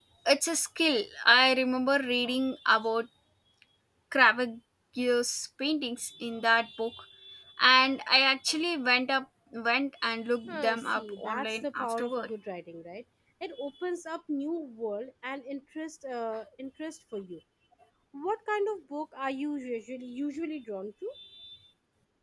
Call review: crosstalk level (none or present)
present